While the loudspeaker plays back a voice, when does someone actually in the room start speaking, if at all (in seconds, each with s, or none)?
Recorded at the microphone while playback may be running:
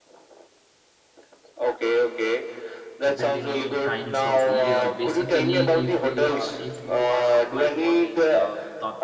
3.0 s